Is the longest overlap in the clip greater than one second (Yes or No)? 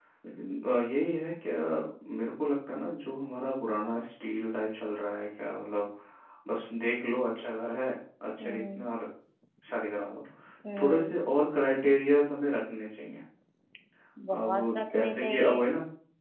Yes